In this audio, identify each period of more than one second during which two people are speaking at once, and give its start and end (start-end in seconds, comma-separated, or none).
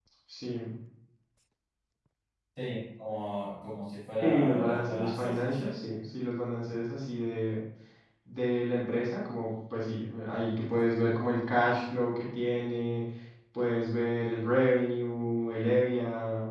4.2-5.6